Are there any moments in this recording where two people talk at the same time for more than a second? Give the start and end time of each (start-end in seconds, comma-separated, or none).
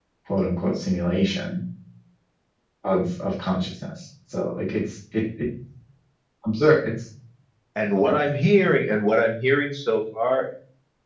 none